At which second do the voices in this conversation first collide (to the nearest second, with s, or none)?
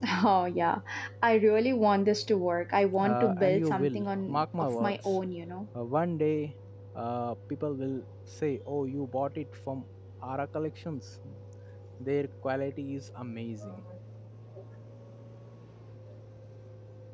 3 s